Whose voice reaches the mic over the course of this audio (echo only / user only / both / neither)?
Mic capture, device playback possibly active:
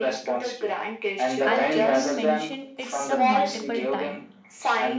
both